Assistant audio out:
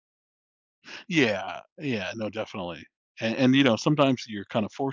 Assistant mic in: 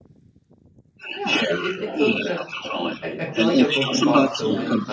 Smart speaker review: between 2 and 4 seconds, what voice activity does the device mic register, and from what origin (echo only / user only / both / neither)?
both